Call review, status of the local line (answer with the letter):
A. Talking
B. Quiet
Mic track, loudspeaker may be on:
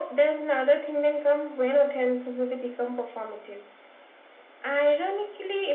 B